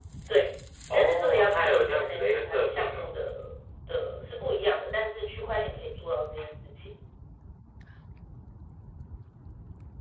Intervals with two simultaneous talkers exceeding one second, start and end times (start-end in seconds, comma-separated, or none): 0.9-3.1